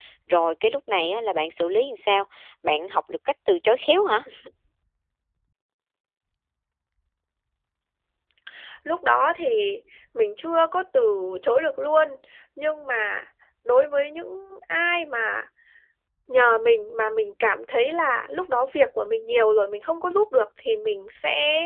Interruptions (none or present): none